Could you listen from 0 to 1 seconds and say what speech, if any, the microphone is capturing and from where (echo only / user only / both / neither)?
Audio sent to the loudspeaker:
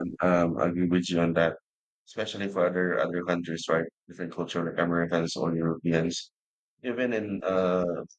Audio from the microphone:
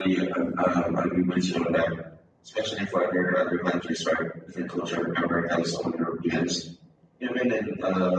echo only